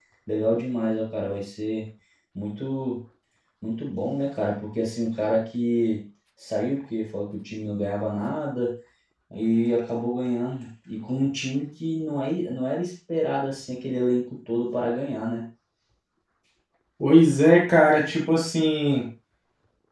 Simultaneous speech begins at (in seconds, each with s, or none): none